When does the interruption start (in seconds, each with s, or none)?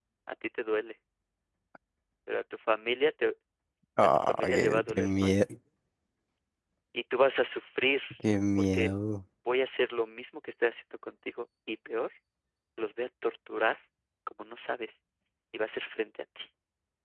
4.0 s